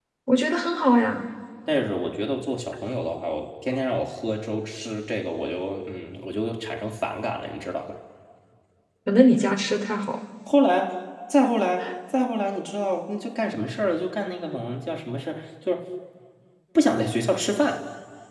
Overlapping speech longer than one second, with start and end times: none

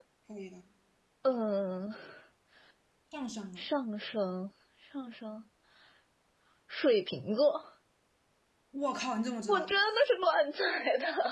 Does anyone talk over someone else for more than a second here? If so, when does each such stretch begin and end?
none

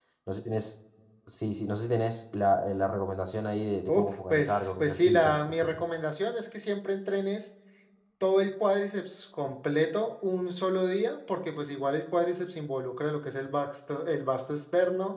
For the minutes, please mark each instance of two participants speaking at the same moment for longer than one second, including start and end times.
3.9-5.8

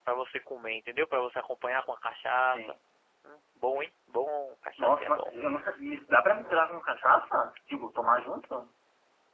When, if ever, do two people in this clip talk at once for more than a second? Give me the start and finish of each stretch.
none

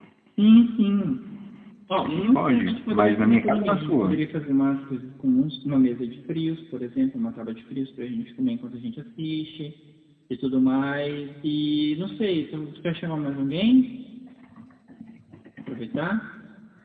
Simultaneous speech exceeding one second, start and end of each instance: 2.0-4.2

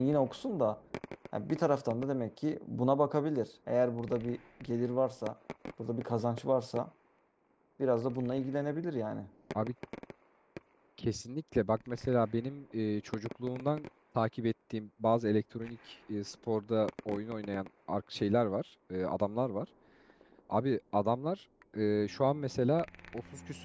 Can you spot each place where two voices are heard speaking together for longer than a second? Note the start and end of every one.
none

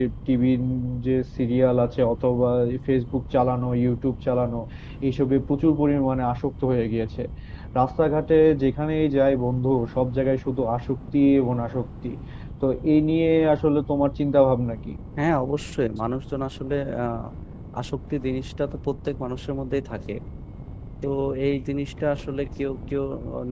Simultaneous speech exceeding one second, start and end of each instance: none

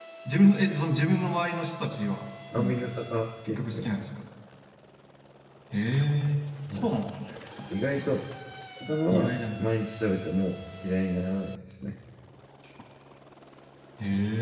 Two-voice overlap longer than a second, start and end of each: none

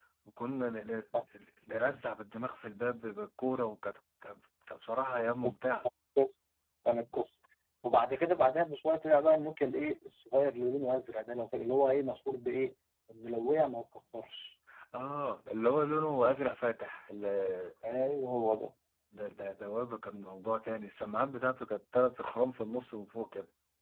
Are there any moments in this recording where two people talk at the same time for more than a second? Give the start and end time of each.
none

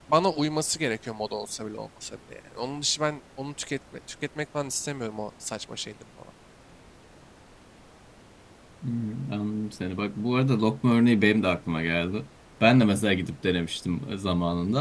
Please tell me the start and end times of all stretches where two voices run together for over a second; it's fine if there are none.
none

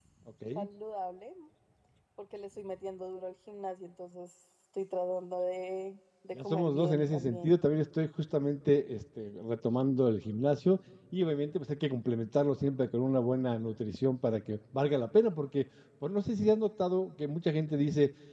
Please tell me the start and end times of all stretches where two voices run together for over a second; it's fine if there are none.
6.3-7.5

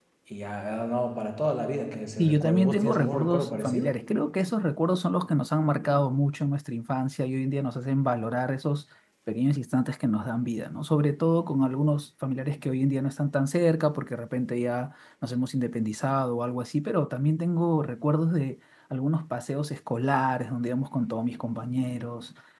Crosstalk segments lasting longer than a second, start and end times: 2.2-3.9

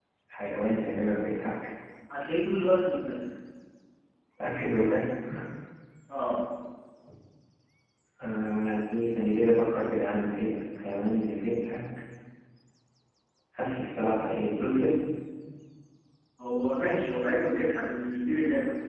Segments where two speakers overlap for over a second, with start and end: none

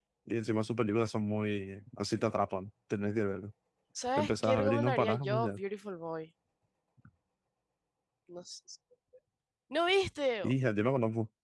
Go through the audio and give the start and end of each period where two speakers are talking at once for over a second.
4.2-5.6

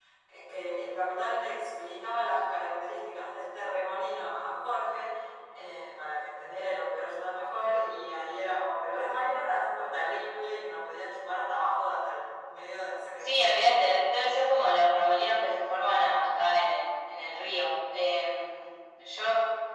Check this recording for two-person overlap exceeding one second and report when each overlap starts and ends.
none

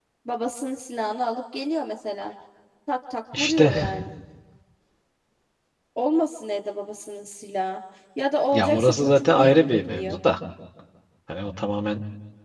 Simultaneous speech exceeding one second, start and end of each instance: 8.5-10.2

